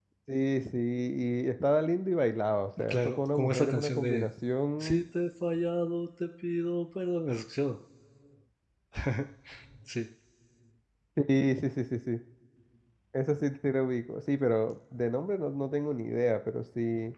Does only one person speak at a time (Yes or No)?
No